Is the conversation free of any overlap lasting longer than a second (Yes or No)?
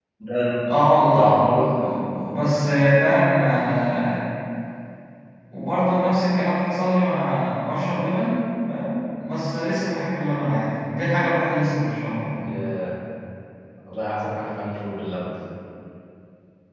Yes